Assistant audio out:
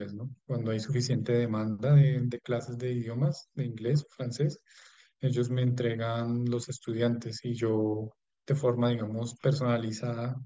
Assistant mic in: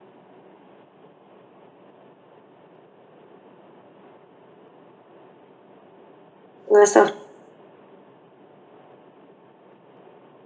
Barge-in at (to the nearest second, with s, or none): 7 s